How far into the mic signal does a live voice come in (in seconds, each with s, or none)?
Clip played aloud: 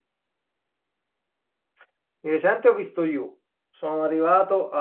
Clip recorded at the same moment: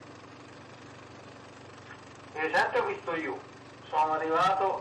none